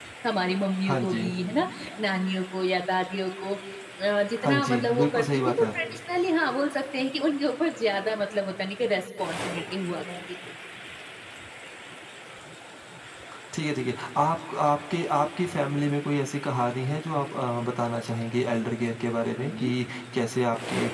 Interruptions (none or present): present